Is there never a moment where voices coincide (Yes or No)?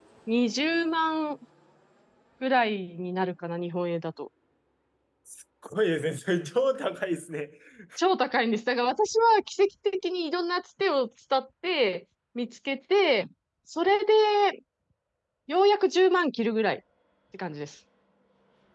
Yes